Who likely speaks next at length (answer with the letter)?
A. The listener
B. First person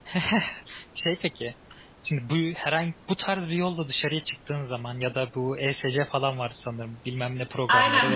A